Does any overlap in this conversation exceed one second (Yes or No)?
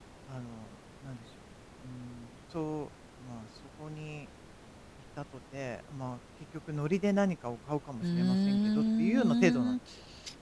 Yes